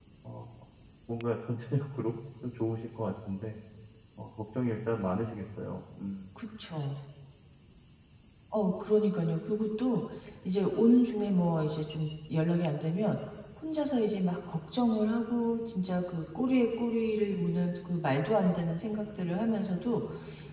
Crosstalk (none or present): none